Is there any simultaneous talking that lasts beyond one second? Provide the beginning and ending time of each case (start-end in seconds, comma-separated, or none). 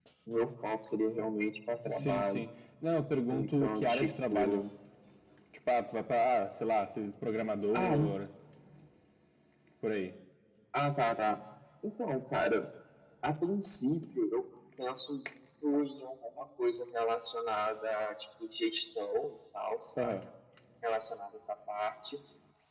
3.3-4.6